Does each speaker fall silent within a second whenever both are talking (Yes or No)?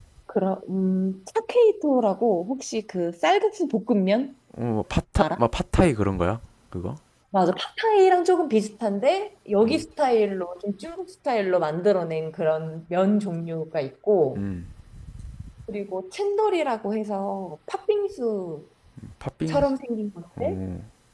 Yes